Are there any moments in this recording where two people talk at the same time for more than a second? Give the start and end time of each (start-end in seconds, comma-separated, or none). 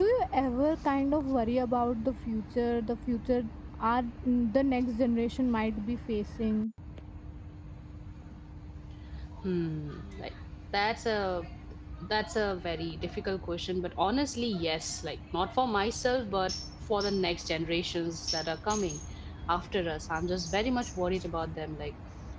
none